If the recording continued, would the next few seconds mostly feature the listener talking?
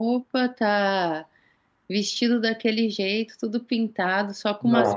Yes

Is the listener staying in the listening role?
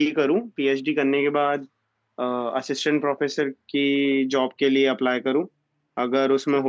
Yes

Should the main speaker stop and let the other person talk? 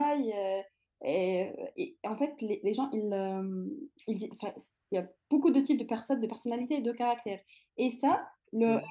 No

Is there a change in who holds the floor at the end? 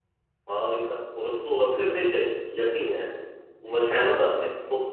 No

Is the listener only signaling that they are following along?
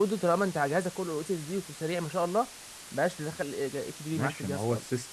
No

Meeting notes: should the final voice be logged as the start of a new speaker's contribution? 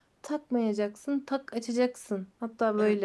Yes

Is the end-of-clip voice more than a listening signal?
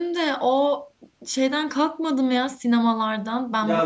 Yes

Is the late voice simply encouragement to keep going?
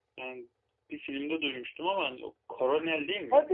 Yes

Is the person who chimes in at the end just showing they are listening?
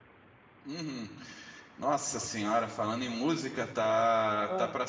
Yes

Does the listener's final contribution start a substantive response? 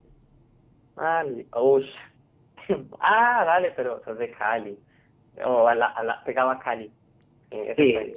Yes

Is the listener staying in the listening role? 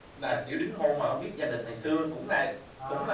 No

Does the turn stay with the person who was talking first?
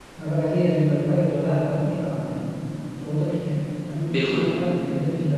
Yes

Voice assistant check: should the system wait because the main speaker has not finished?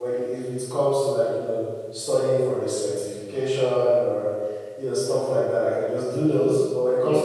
Yes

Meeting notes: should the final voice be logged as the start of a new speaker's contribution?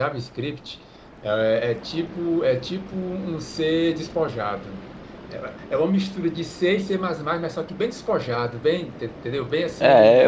Yes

